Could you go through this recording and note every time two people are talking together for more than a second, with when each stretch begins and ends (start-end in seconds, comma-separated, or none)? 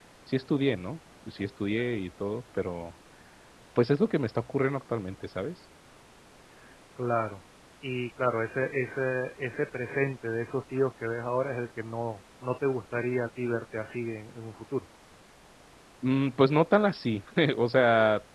none